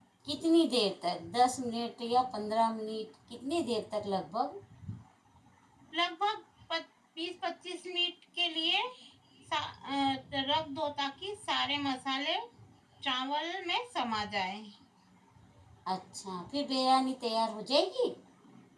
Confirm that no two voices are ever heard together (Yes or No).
Yes